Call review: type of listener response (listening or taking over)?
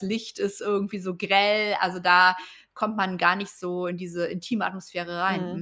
taking over